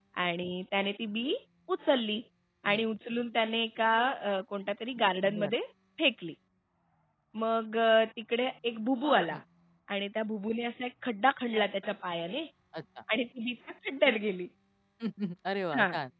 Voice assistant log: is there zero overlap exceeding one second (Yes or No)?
Yes